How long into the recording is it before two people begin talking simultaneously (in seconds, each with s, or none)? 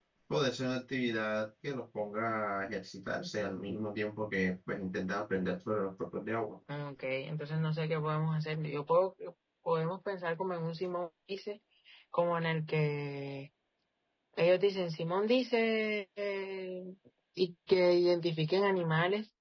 none